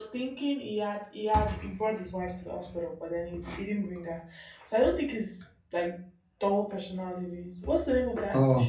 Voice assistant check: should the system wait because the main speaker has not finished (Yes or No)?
Yes